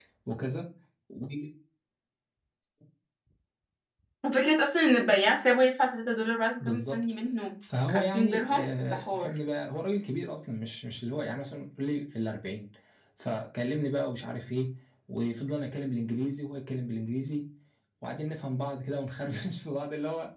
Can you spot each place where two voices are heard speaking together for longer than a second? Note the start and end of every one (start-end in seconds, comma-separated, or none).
7.9-9.3